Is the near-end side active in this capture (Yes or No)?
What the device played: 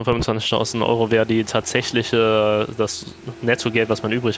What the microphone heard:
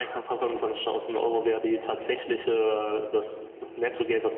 No